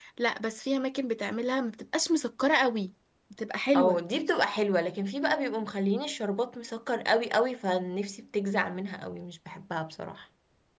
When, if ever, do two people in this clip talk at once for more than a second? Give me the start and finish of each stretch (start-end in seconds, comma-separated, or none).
none